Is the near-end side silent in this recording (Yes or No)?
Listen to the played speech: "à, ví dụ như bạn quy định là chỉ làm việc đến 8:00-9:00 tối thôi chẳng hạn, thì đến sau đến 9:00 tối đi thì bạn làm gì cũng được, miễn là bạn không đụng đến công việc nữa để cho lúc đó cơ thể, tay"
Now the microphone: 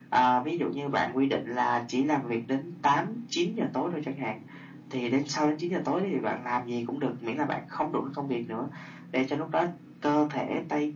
Yes